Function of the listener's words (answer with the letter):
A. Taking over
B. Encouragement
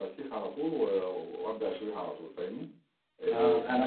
A